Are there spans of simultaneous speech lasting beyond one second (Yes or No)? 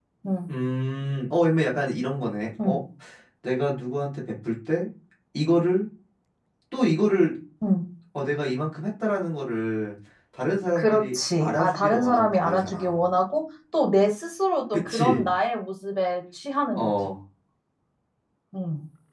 Yes